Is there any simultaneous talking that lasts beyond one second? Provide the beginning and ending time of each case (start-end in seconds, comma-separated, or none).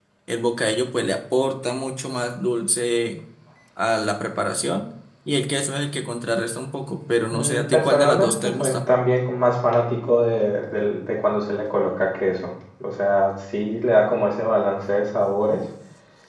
7.3-8.8